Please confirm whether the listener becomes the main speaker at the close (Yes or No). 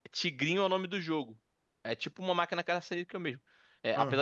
No